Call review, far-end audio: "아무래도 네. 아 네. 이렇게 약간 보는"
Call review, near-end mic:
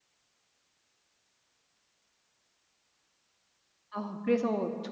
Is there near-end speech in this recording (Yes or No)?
Yes